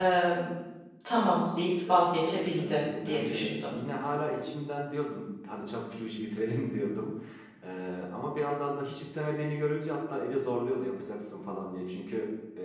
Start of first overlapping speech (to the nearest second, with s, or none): 2 s